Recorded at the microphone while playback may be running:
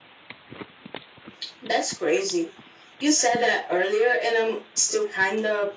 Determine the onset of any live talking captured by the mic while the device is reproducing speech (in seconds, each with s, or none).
none